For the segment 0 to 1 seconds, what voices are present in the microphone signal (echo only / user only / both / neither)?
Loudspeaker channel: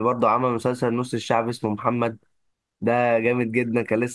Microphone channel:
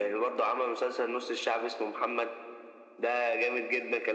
echo only